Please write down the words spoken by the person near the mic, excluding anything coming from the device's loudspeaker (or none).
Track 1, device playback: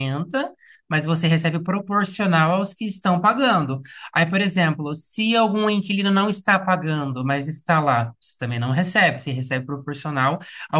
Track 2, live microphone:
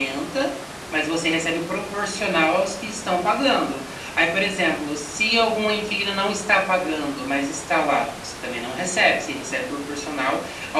none